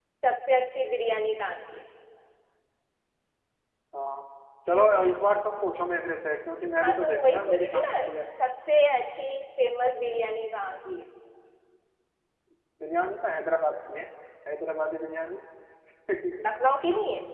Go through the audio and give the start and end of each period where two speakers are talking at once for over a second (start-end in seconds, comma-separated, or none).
6.8-8.1